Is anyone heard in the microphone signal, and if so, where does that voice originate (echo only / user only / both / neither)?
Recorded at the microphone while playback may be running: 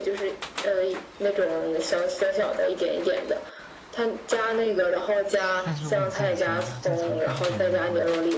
both